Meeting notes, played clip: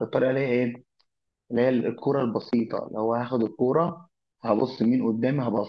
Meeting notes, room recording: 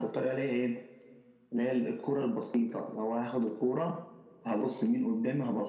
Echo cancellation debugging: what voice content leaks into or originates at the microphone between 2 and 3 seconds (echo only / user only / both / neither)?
echo only